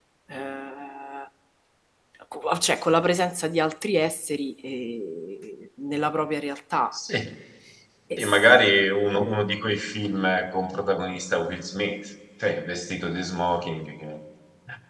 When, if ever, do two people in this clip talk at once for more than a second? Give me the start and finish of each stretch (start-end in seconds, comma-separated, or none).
none